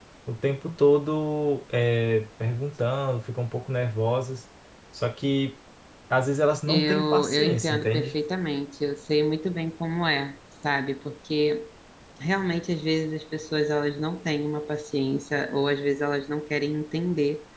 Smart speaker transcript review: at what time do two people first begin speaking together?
6.7 s

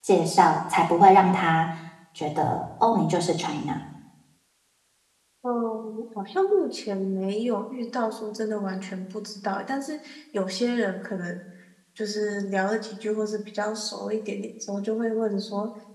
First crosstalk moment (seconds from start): none

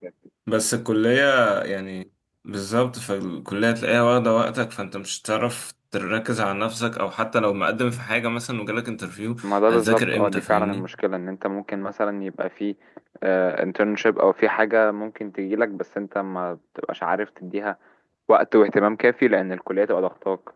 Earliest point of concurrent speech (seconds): 9.4 s

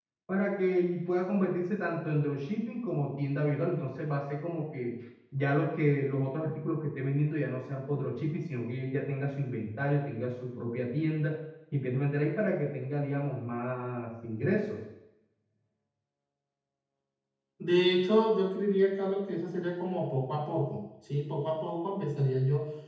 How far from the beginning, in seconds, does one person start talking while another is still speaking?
none

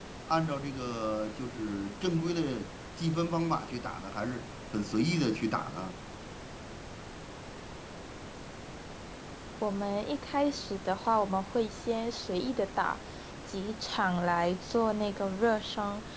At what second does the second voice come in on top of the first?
none

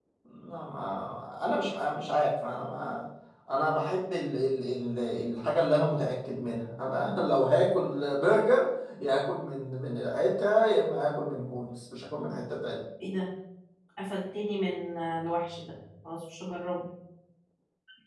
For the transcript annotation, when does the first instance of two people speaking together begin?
none

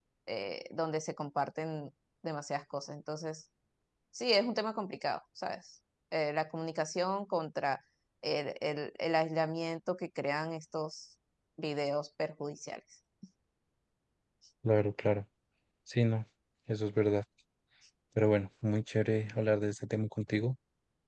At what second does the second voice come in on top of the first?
none

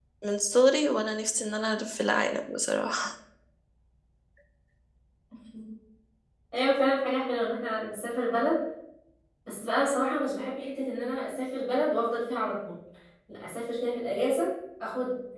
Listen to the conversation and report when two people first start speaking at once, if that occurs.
none

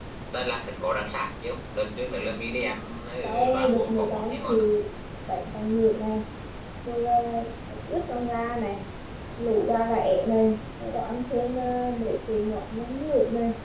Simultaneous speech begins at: 3.2 s

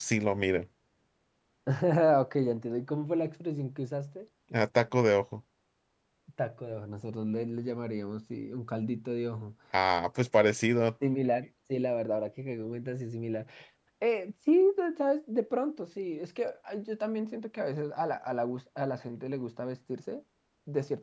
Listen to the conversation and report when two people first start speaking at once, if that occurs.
none

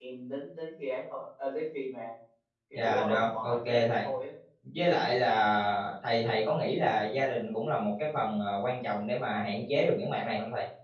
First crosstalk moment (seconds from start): 2.7 s

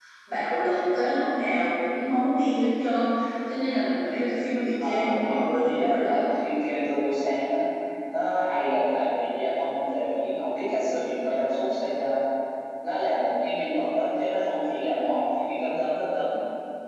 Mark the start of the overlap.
4.8 s

